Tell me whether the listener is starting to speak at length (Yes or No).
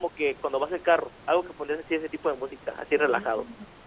Yes